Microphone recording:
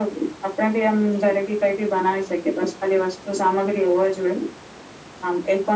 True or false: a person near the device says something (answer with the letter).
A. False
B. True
A